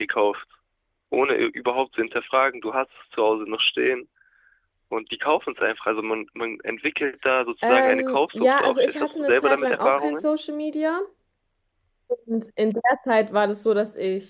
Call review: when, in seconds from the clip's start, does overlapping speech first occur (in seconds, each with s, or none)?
7.6 s